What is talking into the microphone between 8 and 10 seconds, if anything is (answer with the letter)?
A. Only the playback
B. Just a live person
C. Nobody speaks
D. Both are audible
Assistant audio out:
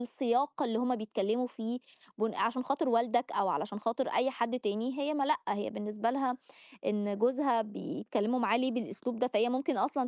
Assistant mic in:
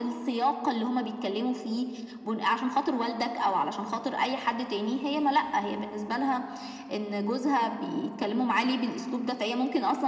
A